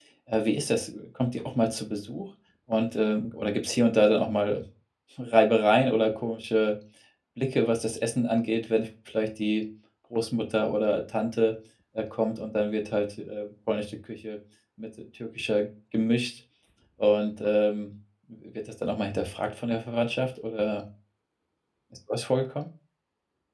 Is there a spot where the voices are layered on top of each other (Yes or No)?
No